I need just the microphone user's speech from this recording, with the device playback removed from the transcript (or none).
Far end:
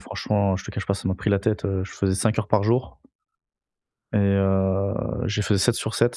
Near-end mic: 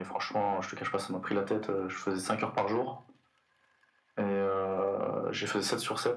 none